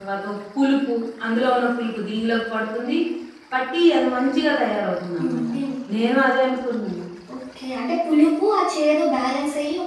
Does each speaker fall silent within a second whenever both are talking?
Yes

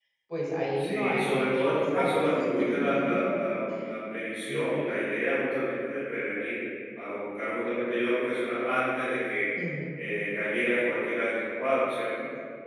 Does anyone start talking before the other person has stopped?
Yes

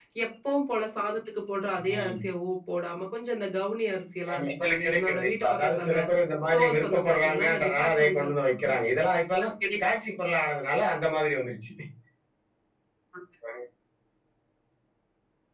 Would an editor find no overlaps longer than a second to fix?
No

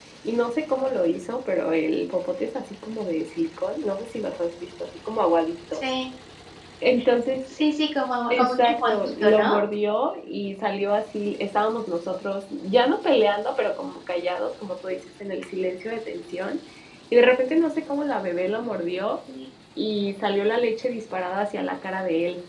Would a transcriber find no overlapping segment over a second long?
No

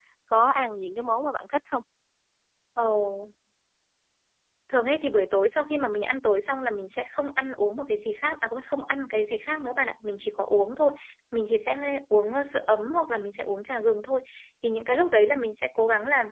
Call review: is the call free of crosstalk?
Yes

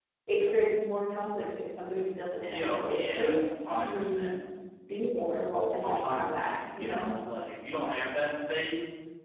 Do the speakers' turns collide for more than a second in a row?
Yes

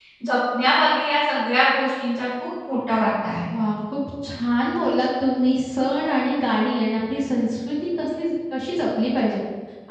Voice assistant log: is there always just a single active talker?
Yes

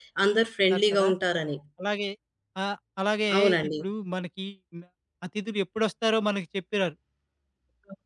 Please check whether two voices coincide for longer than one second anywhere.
No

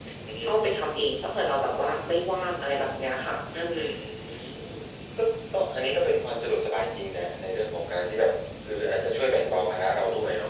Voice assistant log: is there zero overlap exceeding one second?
Yes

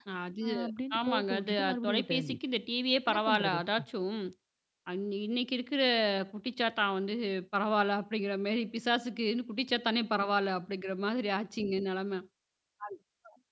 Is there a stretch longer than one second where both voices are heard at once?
Yes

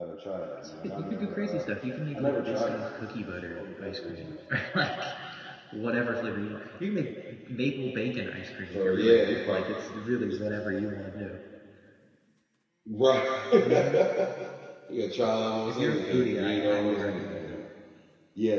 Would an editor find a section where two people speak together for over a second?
Yes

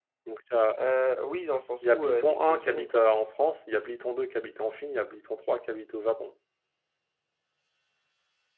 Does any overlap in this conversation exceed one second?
Yes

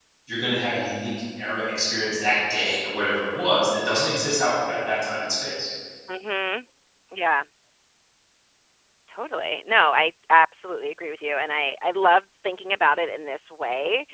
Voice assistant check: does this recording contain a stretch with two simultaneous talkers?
No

